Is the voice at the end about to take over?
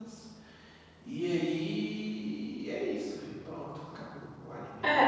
Yes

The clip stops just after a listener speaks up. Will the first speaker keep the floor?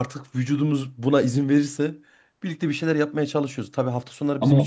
Yes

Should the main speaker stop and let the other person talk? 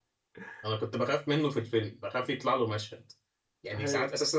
No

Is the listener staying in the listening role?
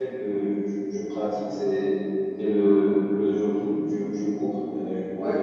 Yes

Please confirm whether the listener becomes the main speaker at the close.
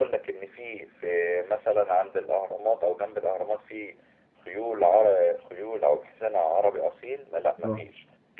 No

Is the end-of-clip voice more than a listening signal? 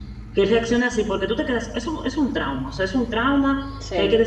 No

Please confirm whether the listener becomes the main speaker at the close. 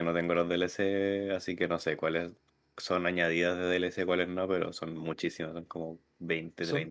Yes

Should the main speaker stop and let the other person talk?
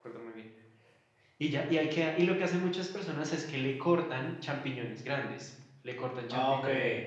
No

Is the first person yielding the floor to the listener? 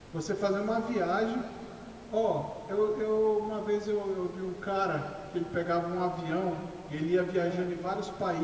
No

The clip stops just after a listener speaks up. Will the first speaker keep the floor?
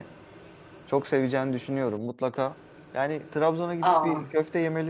Yes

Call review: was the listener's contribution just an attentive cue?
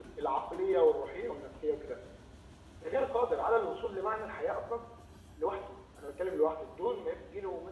No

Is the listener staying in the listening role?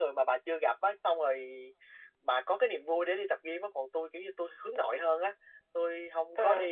Yes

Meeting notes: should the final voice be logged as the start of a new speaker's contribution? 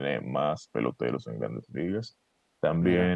No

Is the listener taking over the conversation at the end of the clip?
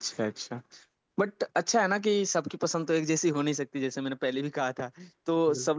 No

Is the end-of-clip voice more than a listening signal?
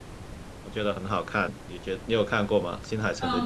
Yes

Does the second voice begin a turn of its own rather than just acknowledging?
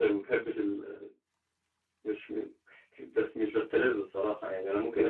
Yes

